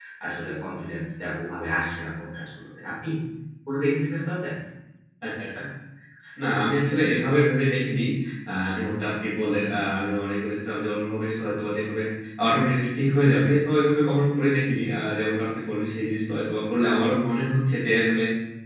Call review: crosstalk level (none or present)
none